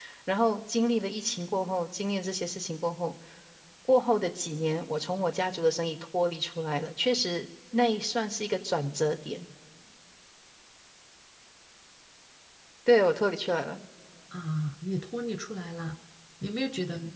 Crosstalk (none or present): none